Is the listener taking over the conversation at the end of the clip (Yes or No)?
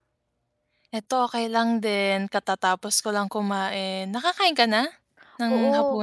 Yes